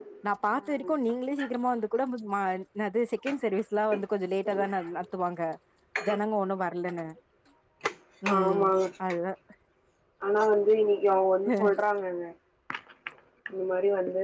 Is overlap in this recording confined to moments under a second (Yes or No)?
Yes